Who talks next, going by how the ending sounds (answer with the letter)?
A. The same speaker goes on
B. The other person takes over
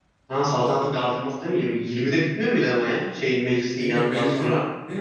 B